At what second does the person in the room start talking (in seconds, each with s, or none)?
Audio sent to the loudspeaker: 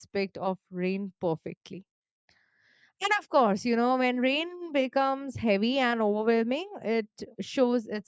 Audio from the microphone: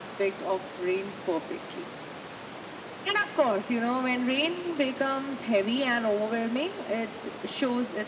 none